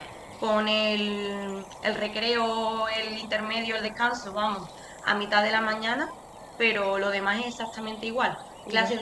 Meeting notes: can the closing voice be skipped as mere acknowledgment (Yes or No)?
Yes